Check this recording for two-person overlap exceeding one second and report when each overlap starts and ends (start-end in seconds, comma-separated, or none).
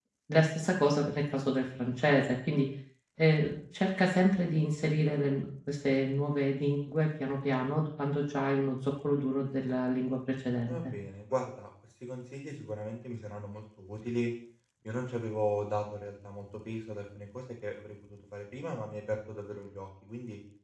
none